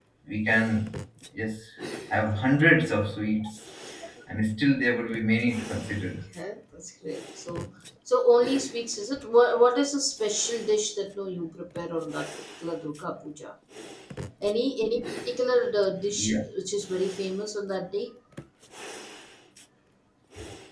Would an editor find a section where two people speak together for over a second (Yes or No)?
No